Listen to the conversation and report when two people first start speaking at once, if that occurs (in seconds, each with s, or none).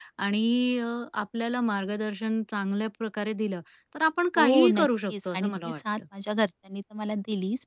4.4 s